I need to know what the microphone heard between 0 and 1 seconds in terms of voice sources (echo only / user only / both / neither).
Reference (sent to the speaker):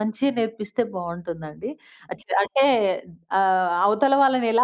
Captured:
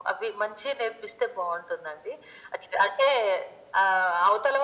echo only